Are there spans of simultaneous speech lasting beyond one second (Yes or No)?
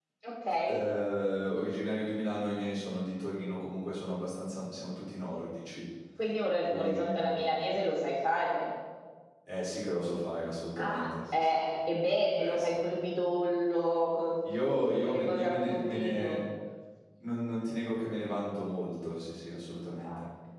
Yes